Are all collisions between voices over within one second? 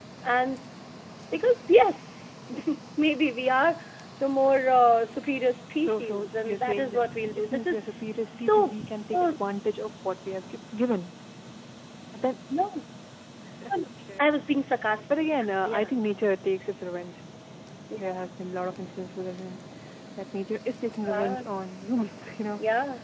No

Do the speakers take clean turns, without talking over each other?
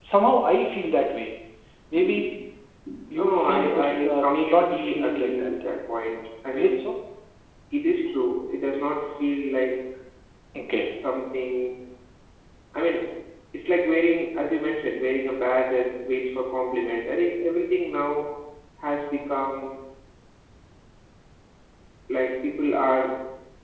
No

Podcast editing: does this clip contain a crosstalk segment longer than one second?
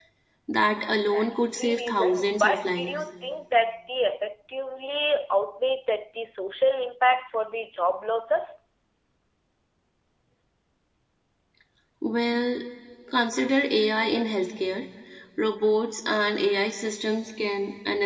Yes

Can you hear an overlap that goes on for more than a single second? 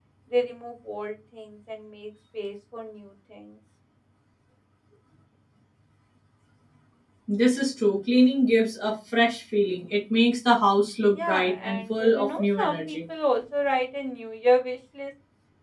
Yes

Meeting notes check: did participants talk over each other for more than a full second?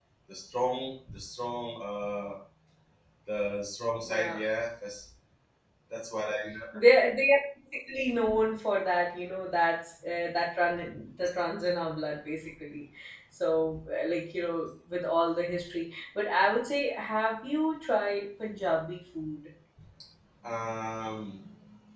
No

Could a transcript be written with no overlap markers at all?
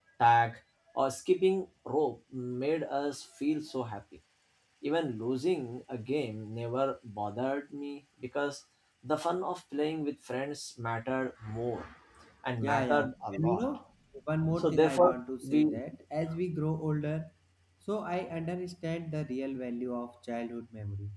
No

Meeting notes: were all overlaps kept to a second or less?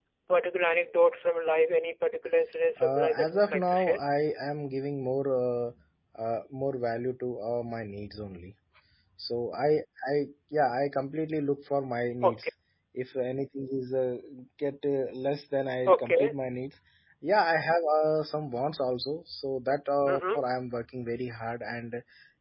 No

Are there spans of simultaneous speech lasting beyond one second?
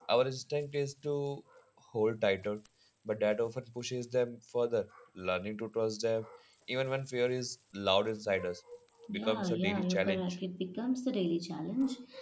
Yes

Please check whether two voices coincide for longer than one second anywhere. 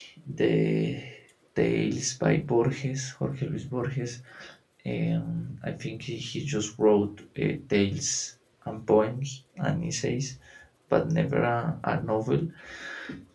No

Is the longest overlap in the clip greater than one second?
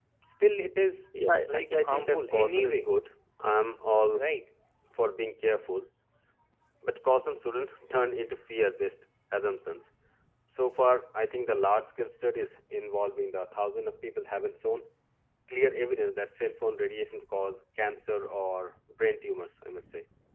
Yes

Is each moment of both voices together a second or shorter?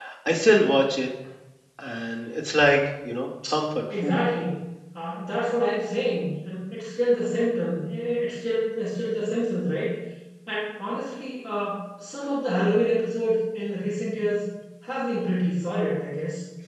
Yes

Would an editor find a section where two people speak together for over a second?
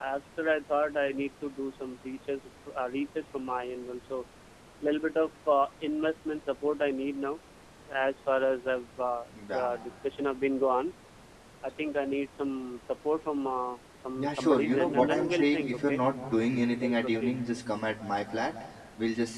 Yes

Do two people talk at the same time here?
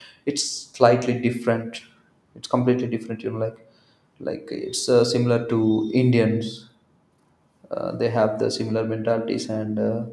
No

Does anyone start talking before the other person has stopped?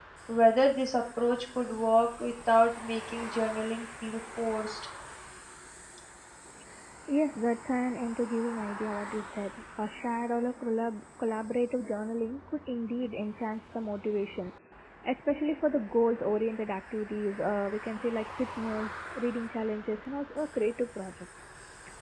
No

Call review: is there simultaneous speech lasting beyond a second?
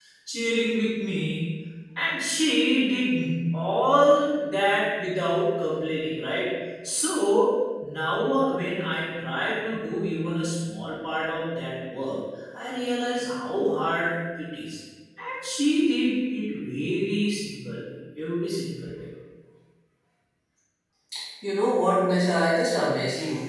No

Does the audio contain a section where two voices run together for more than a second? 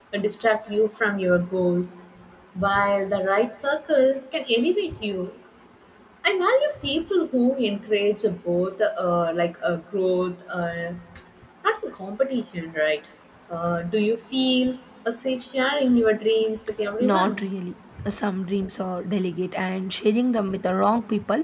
No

